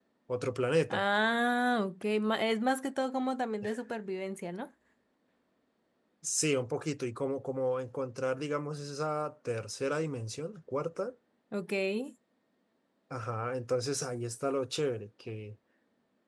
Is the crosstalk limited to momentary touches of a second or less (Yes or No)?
Yes